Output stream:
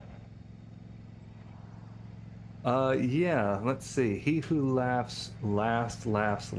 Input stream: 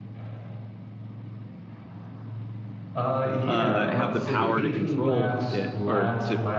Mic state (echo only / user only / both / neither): both